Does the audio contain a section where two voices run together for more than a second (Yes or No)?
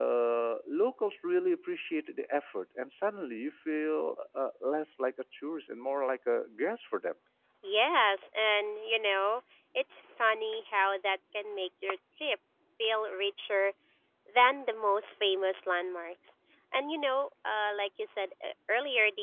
No